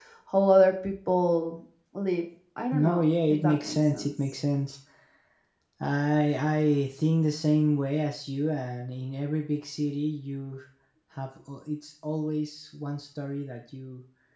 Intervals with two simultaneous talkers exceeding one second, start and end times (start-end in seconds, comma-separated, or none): 2.7-4.1